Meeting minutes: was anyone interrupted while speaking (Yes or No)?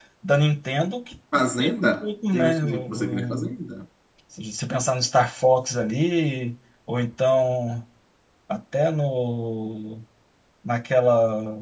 Yes